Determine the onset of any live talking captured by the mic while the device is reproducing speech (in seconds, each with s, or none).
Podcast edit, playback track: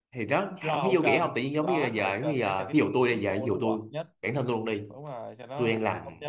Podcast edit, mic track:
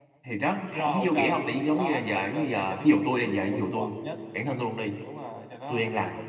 none